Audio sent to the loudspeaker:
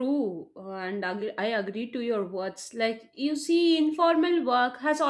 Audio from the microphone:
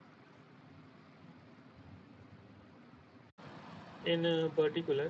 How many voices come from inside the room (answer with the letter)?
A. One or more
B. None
A